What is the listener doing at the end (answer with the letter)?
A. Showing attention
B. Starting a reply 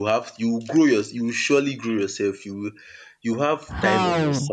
B